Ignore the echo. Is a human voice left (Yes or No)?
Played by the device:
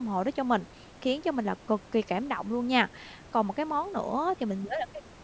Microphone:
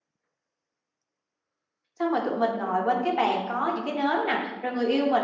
Yes